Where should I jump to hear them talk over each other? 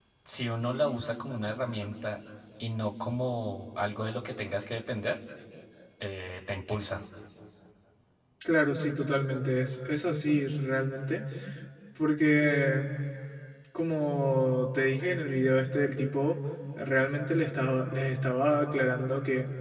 none

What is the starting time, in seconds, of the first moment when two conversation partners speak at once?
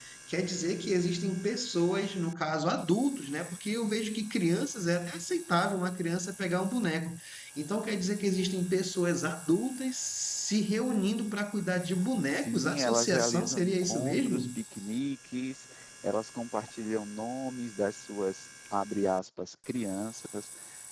12 s

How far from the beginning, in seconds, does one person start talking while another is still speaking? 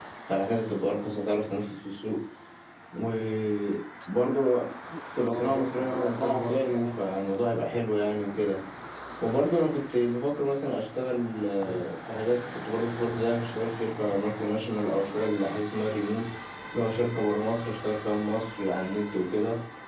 5 s

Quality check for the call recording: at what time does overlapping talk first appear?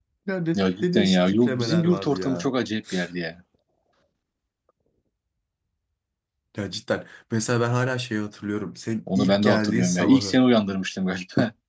1 s

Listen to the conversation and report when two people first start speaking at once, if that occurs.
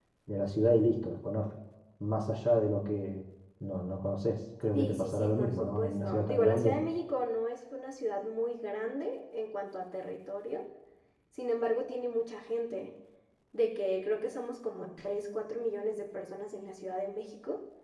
5 s

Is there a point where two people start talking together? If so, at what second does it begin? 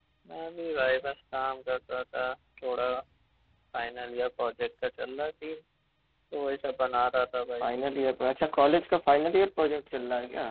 none

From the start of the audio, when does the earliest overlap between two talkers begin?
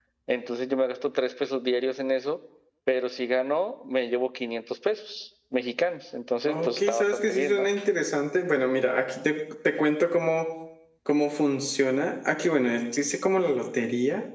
6 s

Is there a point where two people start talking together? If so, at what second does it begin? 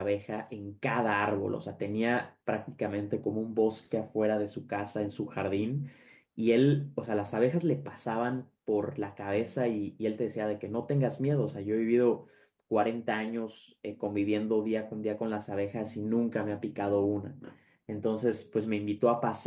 none

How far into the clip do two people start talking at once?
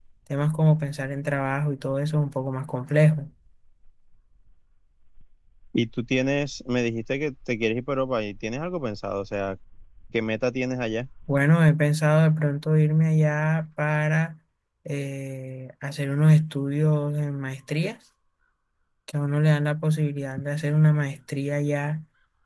none

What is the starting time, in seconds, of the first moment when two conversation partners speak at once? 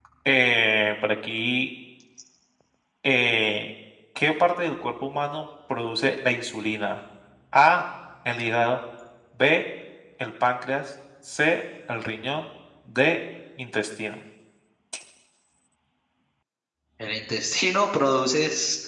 none

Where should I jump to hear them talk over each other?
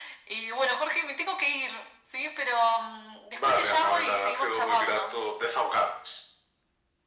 3 s

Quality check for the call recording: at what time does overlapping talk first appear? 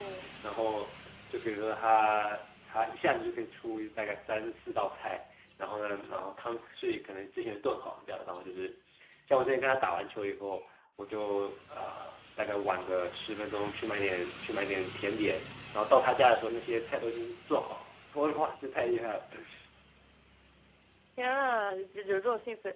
none

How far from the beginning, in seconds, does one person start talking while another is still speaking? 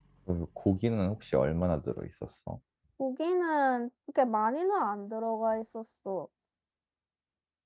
none

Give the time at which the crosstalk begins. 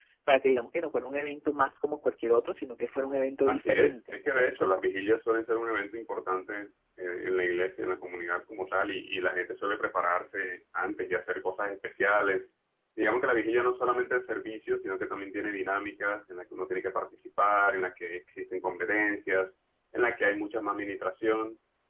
3 s

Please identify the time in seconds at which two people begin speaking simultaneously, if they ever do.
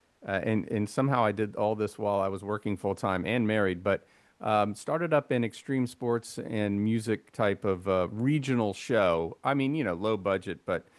none

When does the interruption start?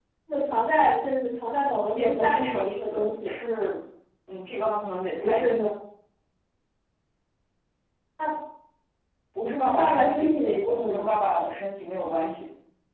2 s

